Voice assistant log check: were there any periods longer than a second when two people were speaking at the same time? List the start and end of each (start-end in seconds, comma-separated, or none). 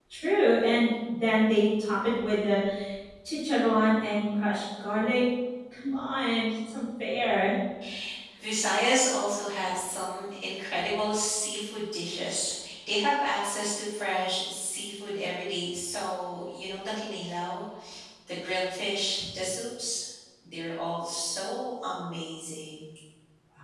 none